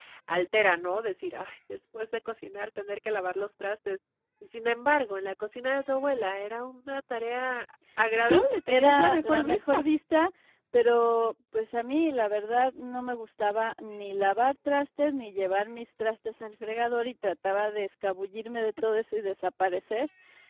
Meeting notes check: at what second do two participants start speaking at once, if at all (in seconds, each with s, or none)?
8.3 s